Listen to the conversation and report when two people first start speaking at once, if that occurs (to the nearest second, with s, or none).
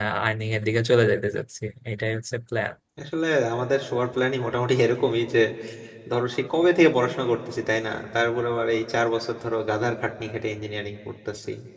none